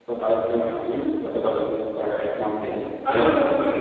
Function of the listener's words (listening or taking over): taking over